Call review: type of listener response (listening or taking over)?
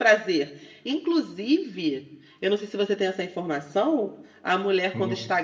listening